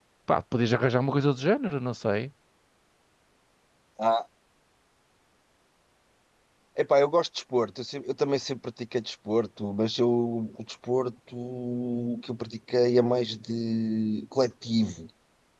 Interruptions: none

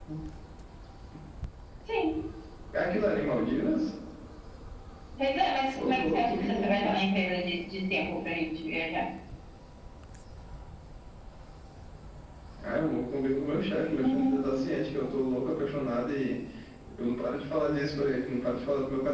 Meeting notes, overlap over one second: present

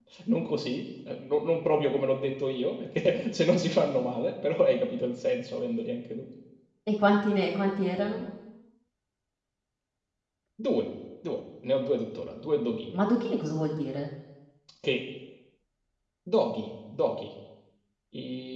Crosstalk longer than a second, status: none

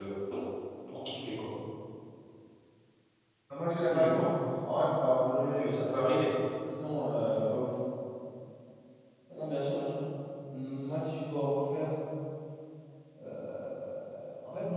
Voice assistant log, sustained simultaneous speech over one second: none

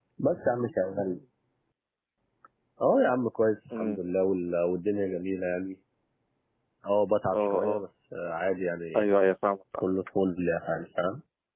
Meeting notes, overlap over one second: none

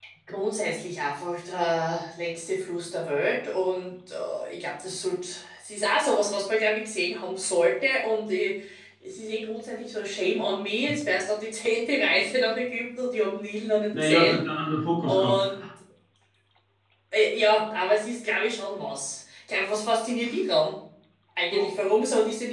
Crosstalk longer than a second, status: none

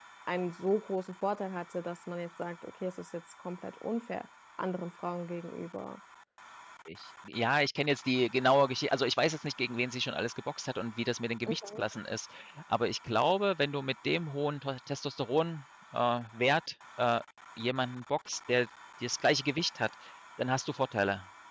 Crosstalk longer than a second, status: none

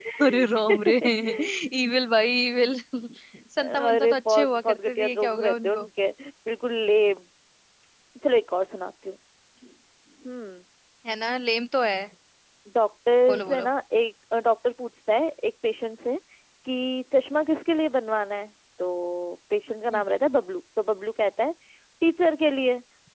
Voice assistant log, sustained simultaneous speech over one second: present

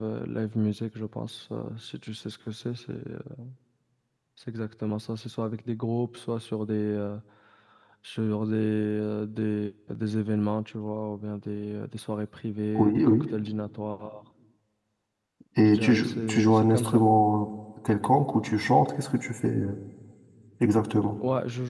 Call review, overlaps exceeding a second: present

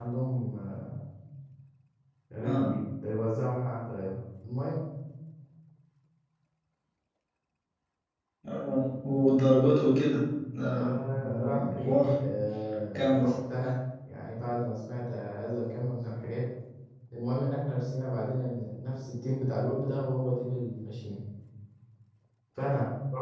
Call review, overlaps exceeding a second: present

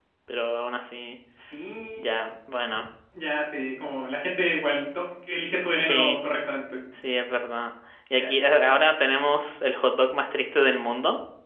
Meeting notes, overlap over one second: none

